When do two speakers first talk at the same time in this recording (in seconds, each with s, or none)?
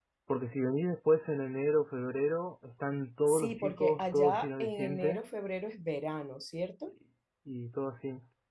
3.3 s